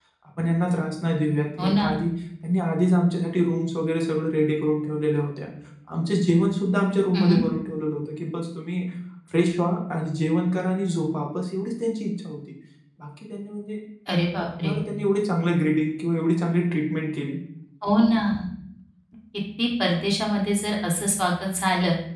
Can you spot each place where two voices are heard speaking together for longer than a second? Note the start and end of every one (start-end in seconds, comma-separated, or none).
none